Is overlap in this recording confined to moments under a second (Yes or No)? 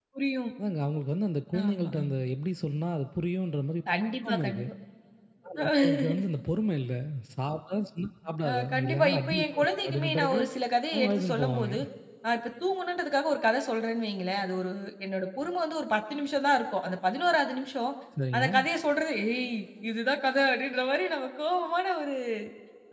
No